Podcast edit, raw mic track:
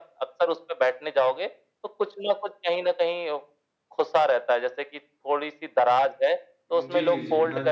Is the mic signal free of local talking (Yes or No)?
No